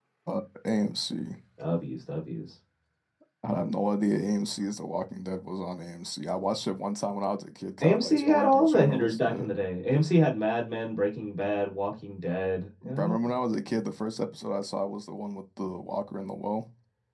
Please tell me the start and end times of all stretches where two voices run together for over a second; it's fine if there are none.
7.8-9.4

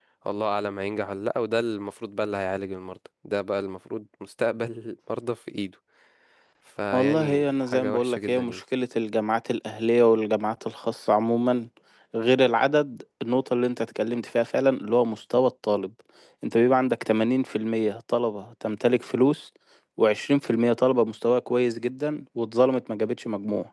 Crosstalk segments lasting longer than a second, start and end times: 6.9-8.6

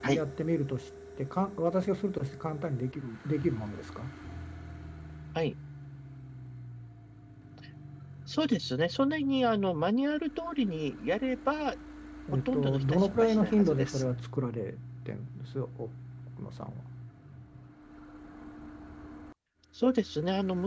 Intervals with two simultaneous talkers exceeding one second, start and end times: 12.4-14.0

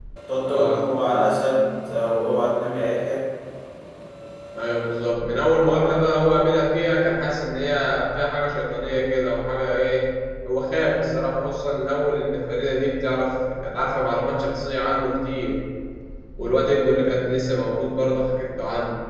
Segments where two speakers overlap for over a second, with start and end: none

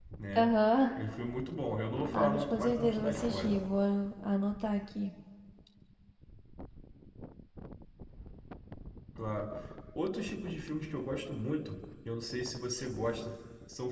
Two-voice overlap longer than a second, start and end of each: 2.1-3.6

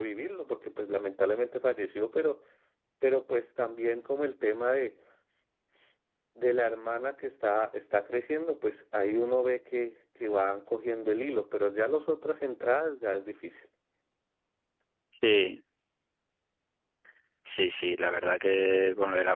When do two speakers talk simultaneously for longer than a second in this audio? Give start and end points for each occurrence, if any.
none

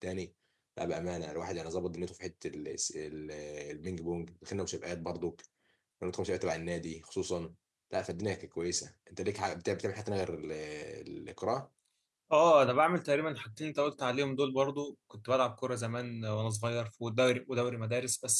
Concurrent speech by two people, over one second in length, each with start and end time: none

